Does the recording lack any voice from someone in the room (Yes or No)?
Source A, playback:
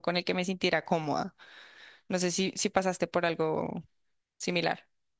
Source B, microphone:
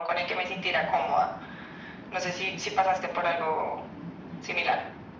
Yes